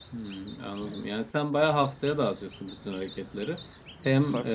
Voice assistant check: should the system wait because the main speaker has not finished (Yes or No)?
Yes